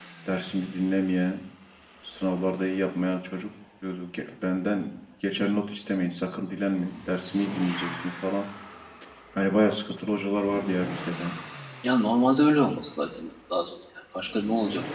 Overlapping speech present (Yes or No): No